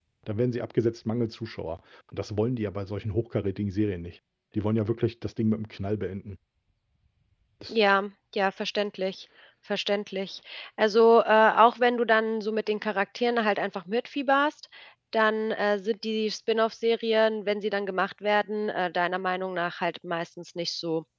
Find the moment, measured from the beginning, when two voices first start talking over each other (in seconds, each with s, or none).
none